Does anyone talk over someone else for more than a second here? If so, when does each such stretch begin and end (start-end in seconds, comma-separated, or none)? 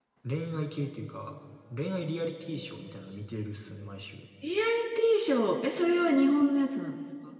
none